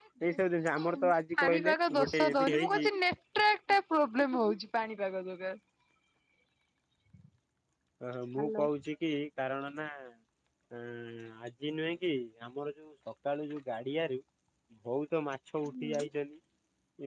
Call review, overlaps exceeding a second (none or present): present